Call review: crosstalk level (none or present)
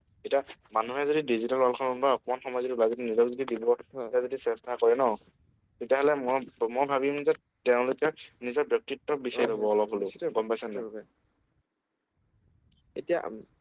present